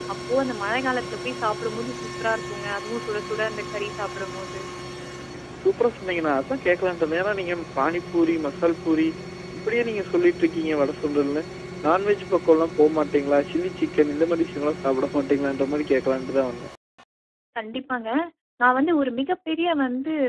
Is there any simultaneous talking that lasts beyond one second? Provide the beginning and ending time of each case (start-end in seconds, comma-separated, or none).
none